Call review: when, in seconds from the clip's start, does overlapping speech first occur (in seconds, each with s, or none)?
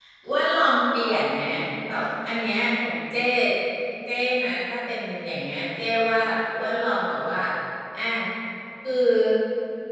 none